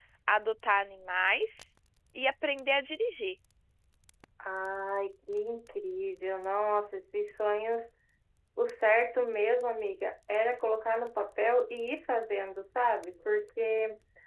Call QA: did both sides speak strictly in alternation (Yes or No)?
Yes